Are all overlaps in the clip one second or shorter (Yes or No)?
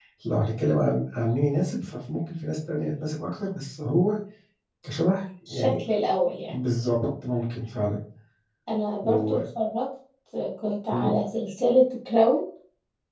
Yes